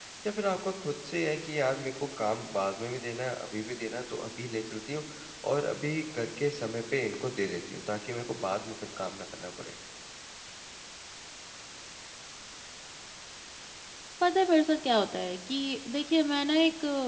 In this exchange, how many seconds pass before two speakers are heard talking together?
none

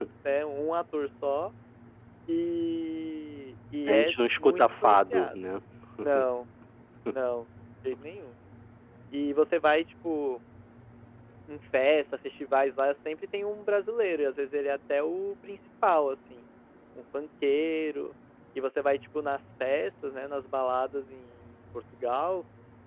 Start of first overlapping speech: 3.9 s

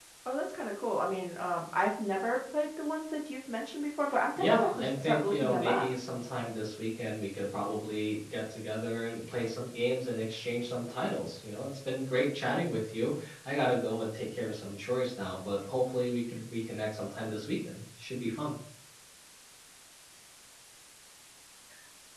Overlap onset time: 4.4 s

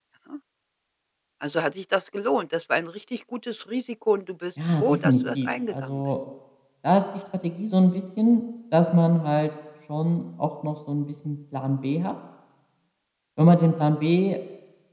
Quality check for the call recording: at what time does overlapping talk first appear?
4.6 s

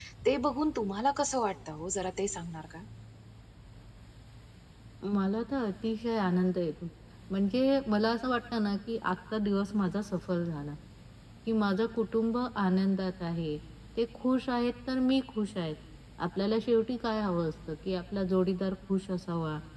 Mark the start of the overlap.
none

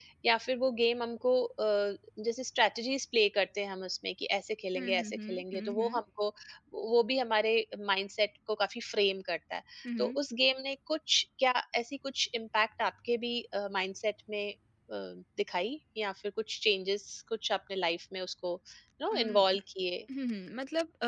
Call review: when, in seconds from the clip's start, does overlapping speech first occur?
4.8 s

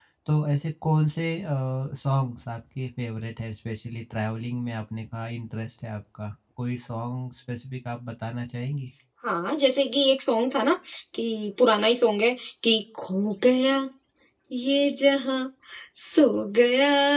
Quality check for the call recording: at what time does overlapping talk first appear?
none

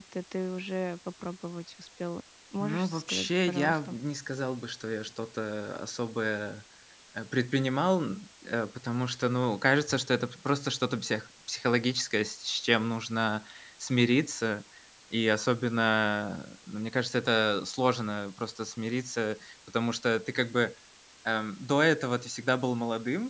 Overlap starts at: 2.6 s

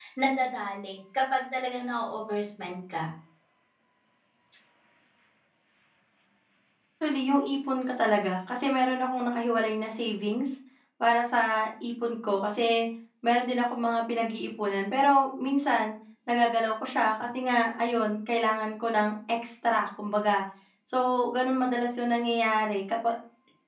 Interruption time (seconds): none

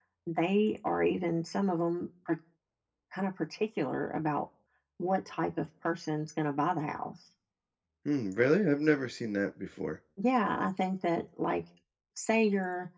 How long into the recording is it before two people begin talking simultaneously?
none

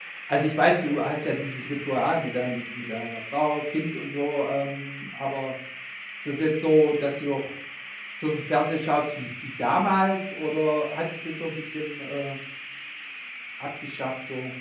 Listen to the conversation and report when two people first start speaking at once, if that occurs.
none

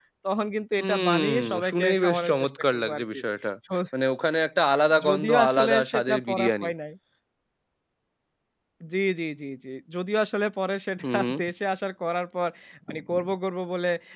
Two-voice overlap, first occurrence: 0.8 s

